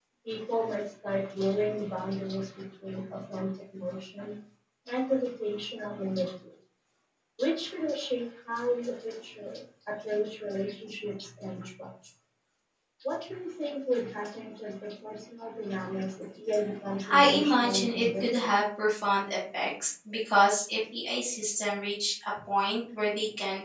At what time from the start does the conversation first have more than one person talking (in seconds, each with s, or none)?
17.0 s